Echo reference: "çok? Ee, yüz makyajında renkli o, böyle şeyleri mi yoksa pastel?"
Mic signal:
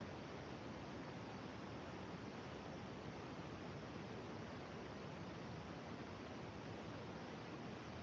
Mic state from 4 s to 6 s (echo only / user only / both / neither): neither